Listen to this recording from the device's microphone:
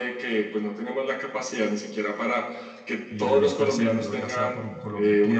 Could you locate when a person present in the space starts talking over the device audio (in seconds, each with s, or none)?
3.1 s